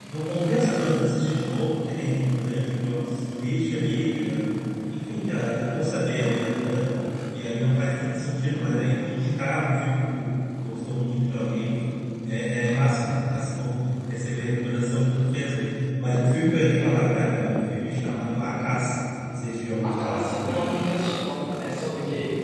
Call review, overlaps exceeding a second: none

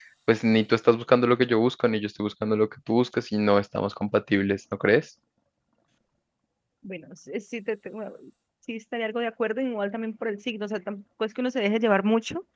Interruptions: none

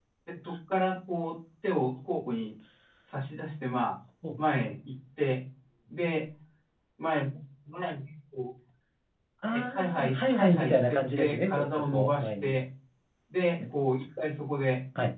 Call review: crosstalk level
present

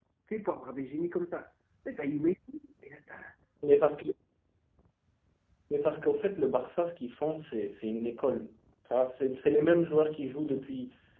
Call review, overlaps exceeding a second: none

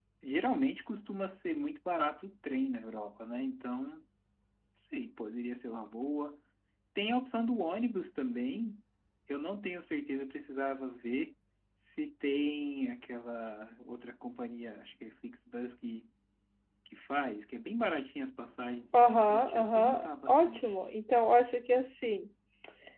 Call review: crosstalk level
present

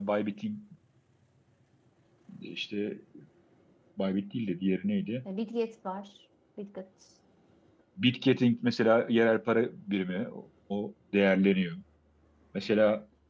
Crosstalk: none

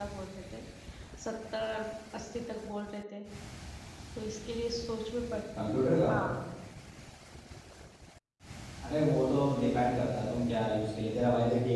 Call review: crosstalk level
none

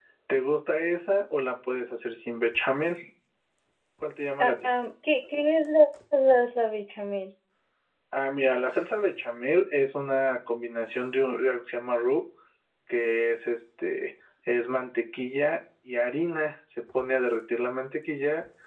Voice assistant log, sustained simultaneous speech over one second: none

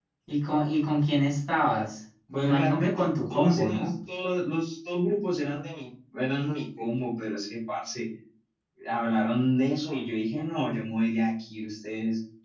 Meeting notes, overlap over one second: present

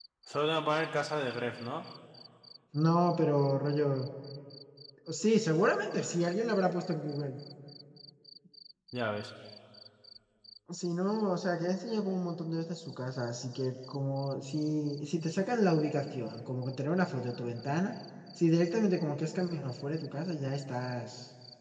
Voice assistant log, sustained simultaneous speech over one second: none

